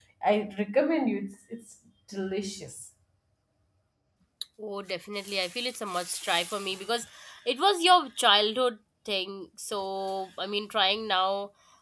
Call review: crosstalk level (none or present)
none